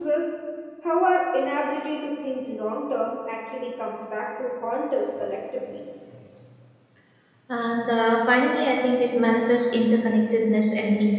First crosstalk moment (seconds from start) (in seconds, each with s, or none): none